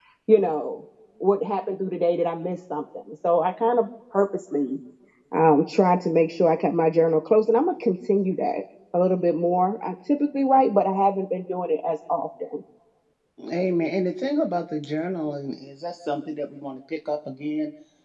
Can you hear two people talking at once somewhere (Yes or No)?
No